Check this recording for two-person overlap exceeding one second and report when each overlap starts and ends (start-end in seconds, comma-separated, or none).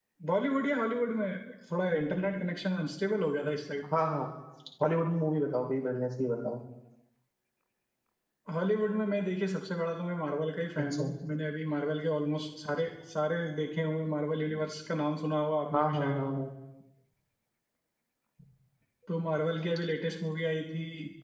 none